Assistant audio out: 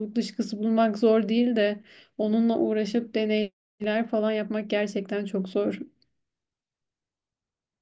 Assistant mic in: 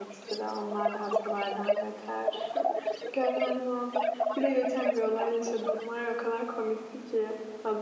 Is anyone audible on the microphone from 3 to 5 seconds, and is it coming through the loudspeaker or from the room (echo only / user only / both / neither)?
both